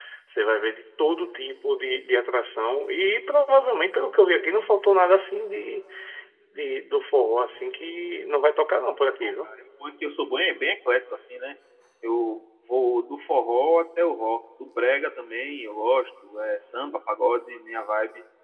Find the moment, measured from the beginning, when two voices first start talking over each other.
none

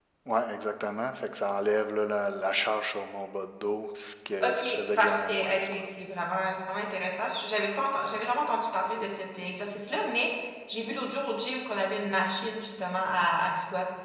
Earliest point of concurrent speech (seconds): 4.4 s

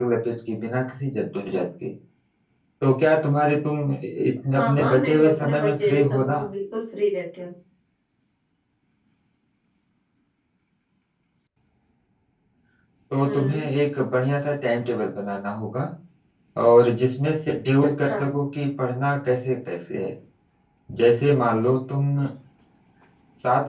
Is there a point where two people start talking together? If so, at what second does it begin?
4.5 s

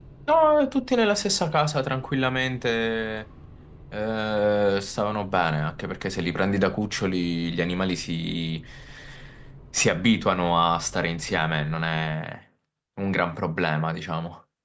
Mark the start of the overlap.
none

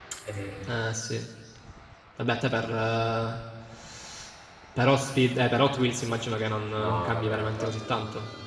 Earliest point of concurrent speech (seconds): 6.8 s

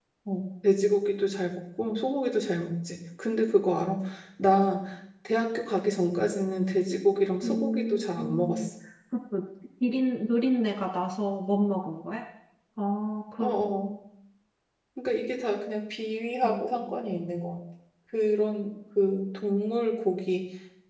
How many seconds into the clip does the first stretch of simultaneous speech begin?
7.4 s

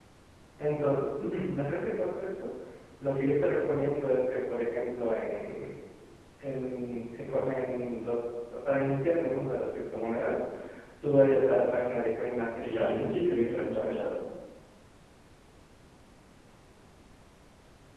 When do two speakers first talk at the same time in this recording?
12.6 s

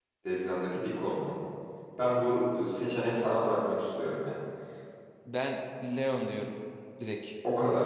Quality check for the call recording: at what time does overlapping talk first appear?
none

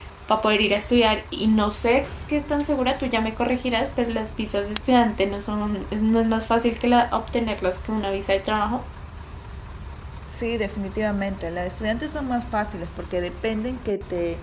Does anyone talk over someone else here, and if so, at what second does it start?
none

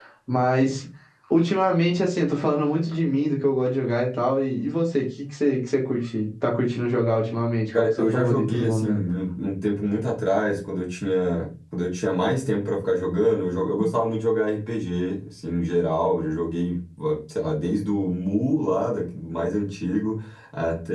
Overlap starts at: 7.7 s

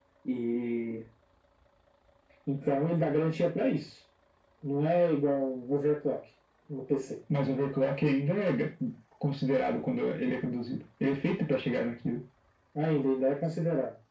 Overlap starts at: none

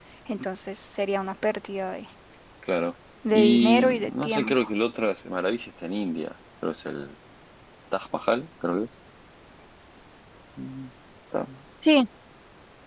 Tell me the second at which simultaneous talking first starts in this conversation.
3.3 s

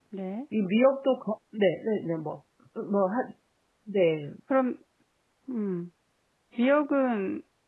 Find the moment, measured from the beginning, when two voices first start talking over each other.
none

